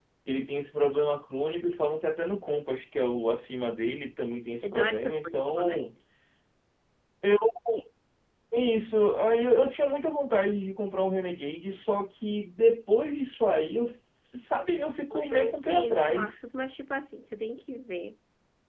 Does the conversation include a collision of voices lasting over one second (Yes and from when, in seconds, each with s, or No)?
Yes, from 4.6 s